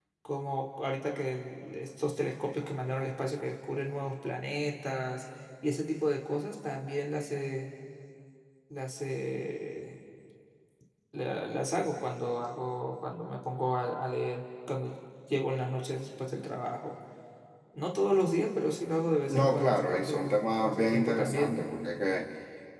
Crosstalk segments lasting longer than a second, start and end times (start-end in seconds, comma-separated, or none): 19.3-21.6